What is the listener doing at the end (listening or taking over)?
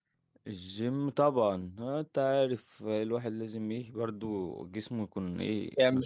taking over